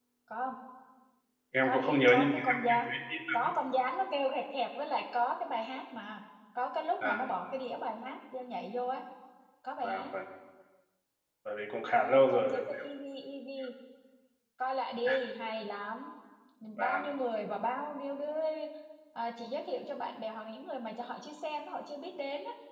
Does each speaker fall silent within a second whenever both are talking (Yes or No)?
No